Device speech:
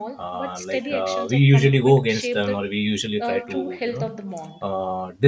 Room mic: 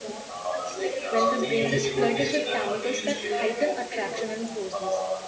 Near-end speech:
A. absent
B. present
B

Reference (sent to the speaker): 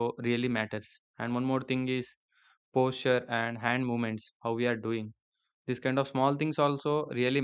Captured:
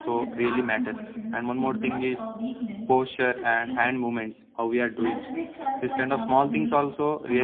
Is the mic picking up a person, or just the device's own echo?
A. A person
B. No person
A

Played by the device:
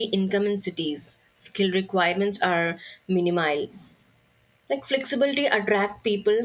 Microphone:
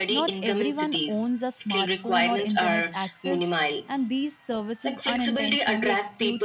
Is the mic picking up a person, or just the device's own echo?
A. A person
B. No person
A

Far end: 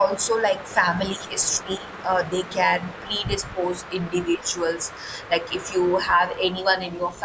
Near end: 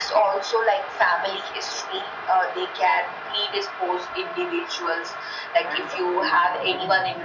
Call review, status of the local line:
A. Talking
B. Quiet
A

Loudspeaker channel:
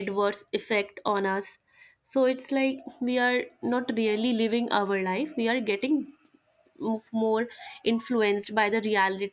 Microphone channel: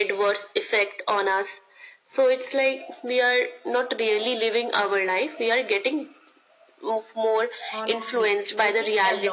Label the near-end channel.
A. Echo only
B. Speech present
B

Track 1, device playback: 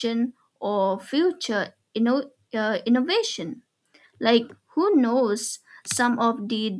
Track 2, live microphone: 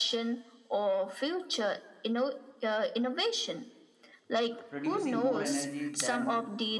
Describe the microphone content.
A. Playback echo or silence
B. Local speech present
B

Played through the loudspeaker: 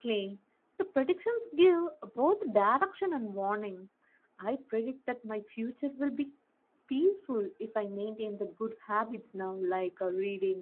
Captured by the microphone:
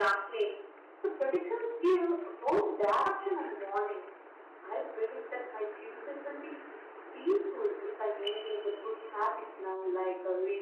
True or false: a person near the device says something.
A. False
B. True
A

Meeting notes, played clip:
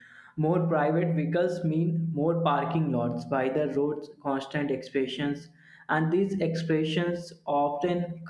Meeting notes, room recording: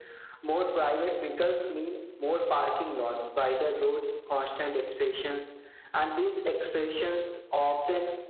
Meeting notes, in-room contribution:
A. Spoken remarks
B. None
B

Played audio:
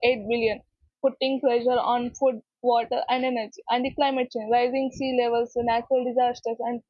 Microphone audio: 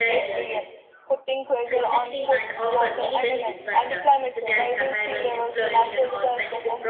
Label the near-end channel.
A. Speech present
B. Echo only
A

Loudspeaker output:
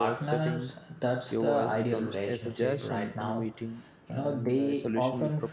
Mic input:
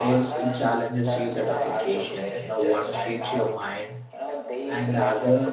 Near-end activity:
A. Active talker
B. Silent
A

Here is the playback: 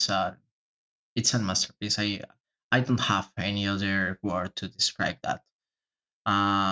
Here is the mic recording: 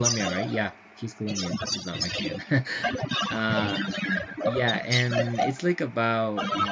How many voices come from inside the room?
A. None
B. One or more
B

